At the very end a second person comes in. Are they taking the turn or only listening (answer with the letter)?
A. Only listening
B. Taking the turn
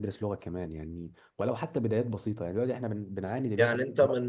B